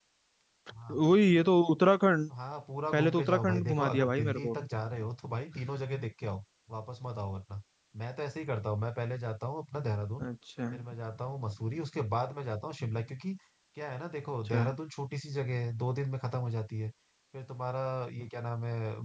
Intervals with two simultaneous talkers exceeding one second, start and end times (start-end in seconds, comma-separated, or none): 2.9-4.6